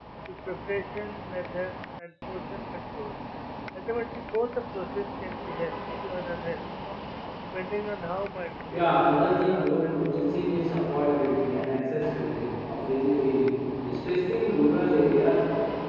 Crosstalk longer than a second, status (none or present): present